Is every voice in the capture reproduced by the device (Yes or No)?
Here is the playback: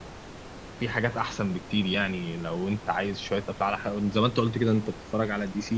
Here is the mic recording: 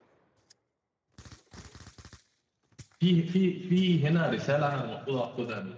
No